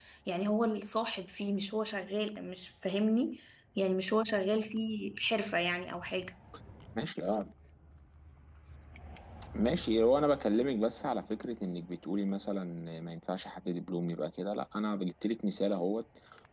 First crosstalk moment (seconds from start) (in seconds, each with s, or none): none